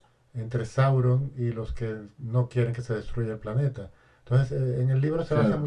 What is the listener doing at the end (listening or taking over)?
listening